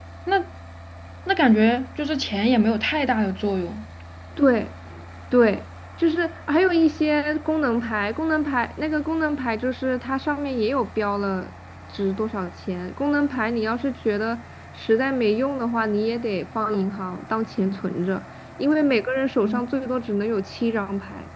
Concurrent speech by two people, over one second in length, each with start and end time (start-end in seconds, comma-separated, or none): none